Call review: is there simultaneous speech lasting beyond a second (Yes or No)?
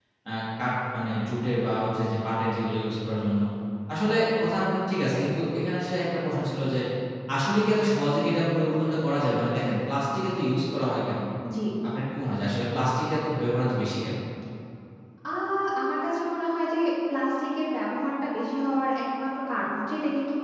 No